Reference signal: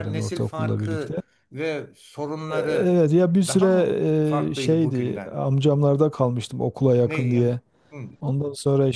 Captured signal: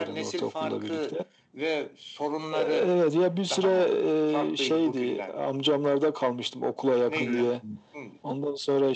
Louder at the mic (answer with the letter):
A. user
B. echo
B